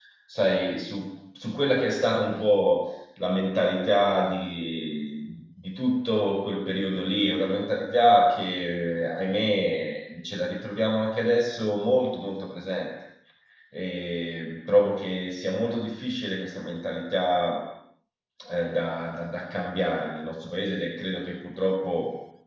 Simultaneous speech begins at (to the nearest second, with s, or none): none